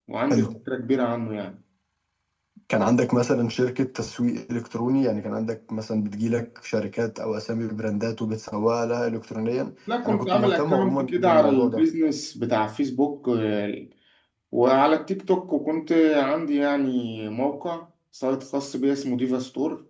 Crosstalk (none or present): present